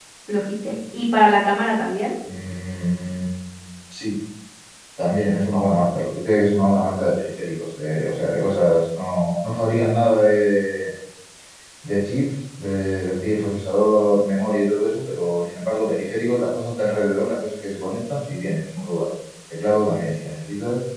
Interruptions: none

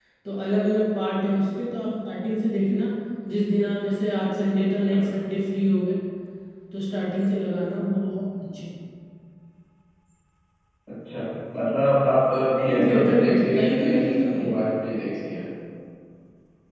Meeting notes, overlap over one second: present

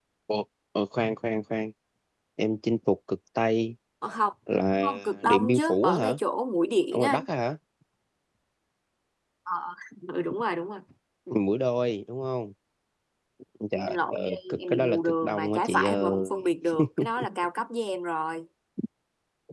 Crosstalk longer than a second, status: present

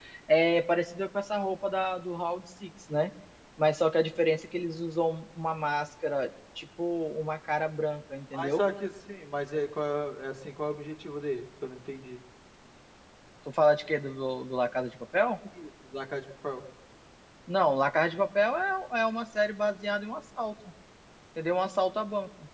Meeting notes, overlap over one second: none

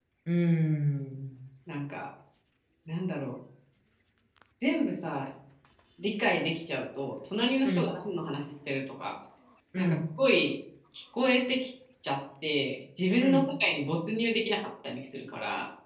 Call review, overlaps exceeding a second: none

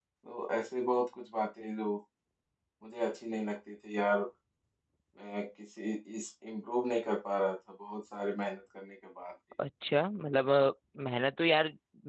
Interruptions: none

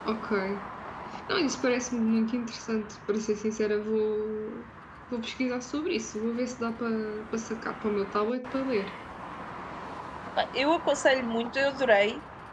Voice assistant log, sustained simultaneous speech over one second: none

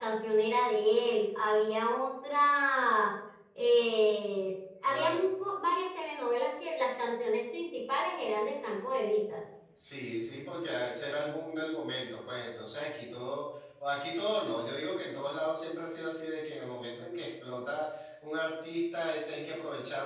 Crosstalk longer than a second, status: none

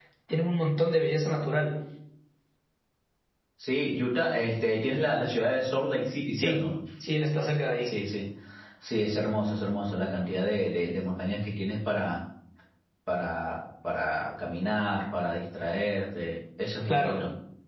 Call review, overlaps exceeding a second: none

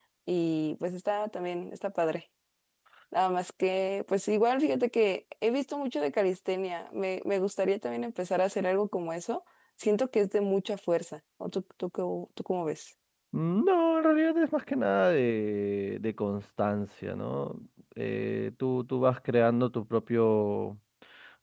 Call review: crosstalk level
none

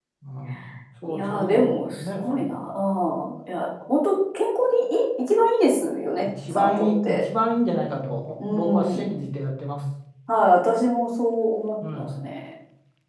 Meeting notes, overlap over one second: present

